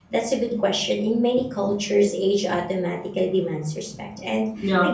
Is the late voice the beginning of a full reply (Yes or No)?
No